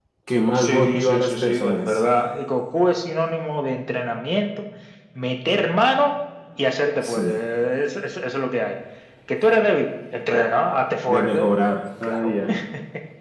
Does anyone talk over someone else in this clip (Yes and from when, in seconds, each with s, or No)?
Yes, from 0.6 s